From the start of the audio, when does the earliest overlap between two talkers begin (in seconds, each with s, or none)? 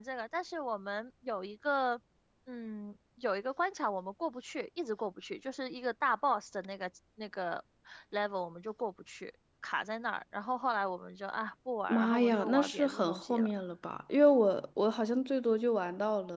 11.9 s